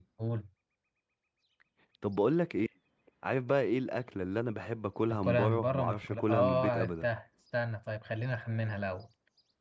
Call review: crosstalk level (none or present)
present